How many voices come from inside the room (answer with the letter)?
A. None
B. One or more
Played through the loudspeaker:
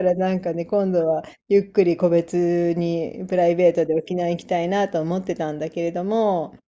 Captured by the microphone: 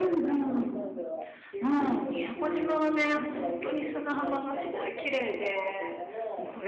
B